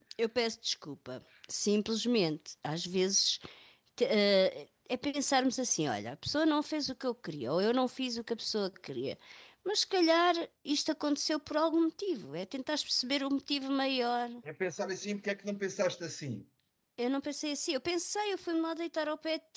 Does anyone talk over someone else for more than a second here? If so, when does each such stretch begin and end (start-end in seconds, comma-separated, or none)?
none